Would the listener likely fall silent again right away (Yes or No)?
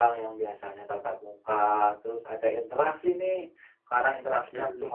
Yes